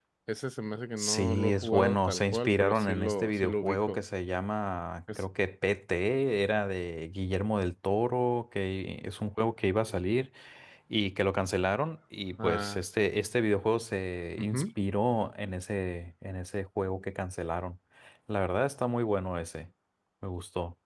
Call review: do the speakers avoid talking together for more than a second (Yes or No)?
No